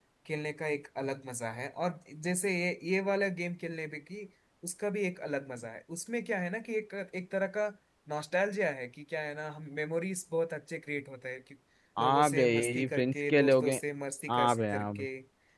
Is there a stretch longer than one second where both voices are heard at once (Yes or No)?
Yes